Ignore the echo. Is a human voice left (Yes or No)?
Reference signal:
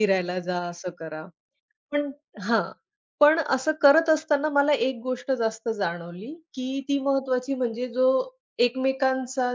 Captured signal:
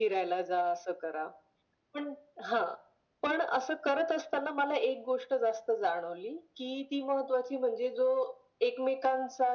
No